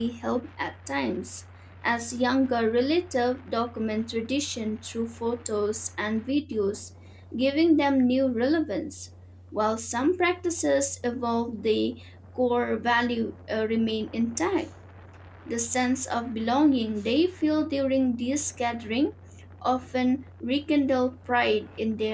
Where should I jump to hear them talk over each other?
none

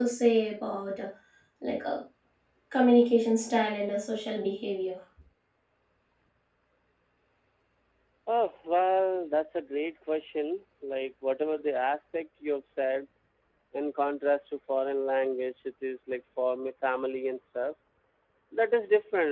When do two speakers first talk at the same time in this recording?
none

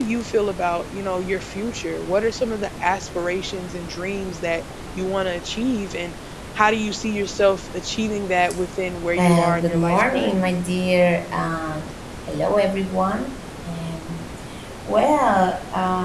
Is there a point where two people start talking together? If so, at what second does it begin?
9.2 s

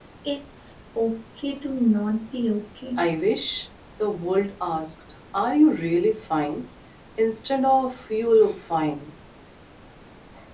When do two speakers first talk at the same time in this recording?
none

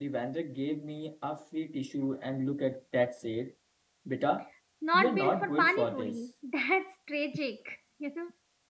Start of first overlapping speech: 4.9 s

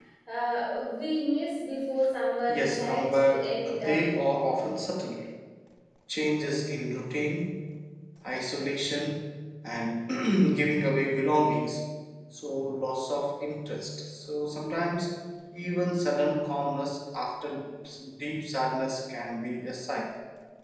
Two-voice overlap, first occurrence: 2.5 s

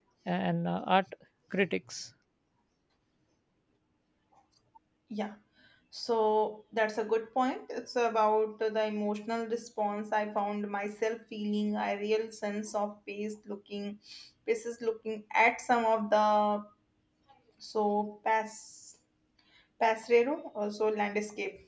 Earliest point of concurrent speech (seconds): none

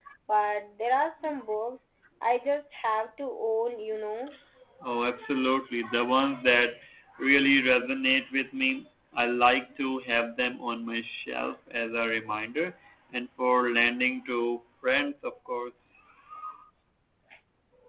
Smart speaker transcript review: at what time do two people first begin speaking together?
none

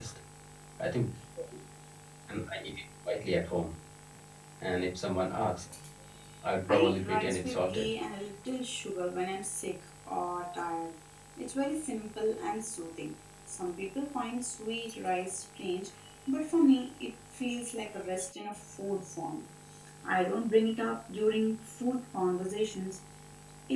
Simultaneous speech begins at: 6.7 s

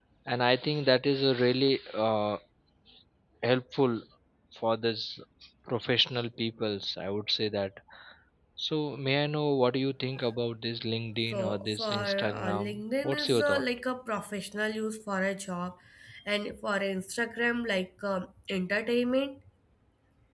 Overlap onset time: 11.3 s

